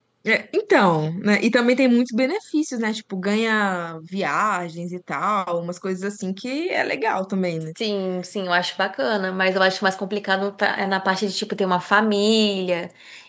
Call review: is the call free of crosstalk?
Yes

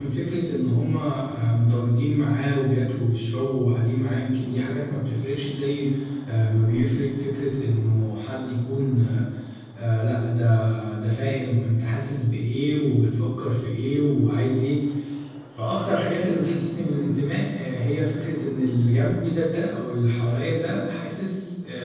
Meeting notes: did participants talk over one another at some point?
No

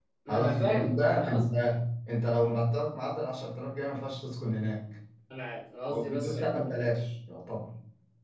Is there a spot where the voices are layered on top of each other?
Yes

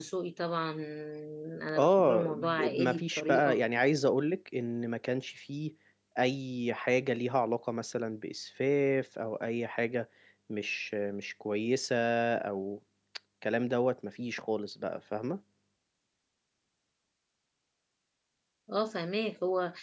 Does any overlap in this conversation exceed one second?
Yes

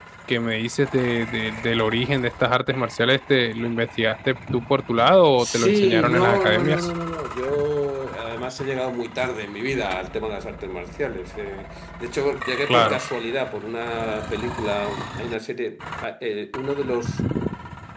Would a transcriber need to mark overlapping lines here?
Yes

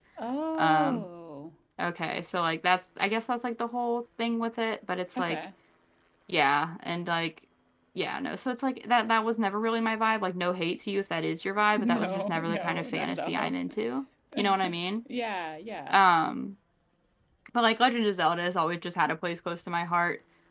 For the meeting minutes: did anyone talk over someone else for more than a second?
Yes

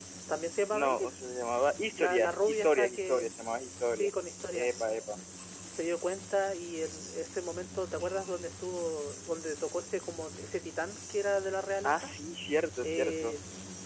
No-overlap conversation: No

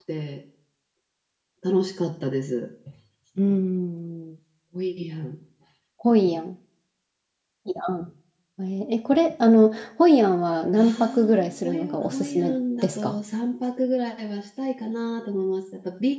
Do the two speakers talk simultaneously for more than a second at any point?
Yes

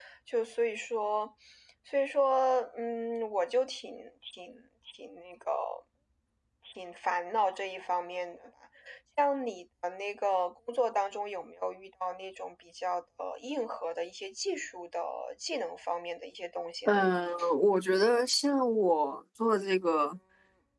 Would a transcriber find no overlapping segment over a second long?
Yes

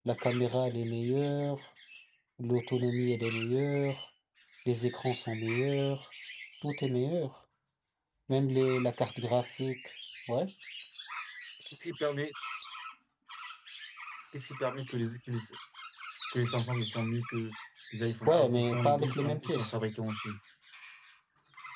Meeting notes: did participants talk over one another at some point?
Yes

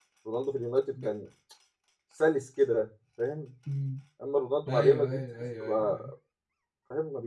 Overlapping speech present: Yes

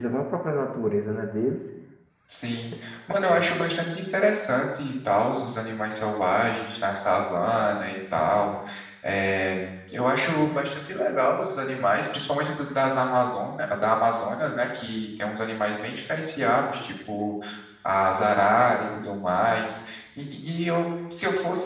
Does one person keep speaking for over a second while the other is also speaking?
No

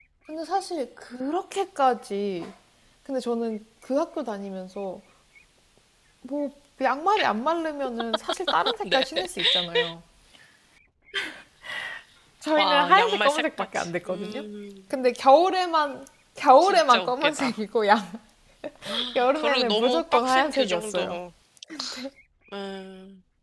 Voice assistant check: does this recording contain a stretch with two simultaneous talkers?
Yes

